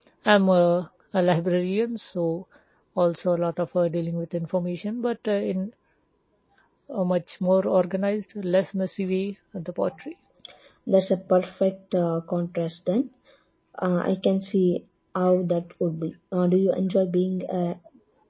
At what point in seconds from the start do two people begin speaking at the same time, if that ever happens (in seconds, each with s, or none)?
none